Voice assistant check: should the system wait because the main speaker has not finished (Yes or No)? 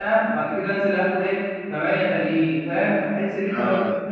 Yes